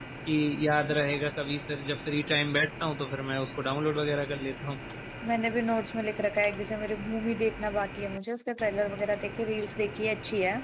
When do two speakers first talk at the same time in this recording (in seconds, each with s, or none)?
none